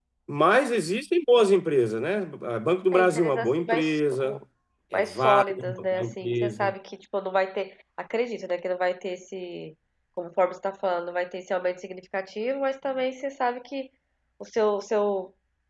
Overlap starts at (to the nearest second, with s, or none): 3 s